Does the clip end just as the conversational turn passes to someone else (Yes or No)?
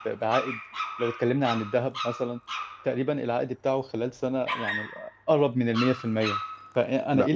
No